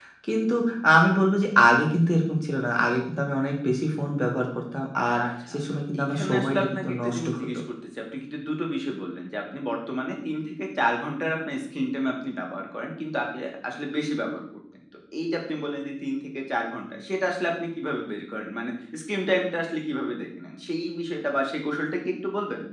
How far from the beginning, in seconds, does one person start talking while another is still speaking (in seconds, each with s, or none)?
5.5 s